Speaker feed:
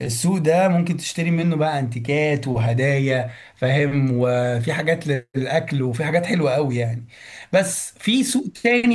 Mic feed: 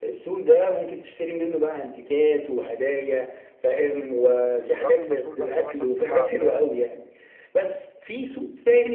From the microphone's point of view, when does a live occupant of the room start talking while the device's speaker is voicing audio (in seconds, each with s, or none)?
4.6 s